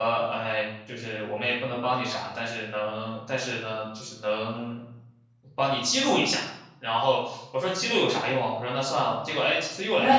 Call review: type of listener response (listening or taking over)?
taking over